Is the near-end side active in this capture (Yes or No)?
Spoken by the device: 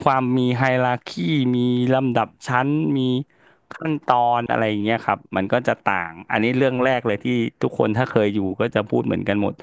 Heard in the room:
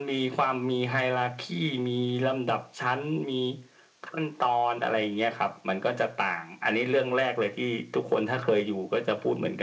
No